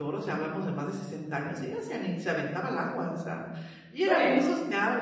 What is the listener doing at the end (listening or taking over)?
listening